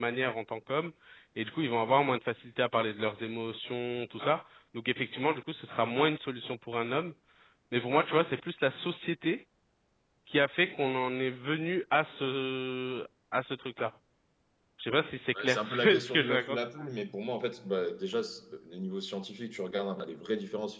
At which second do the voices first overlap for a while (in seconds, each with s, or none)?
15.3 s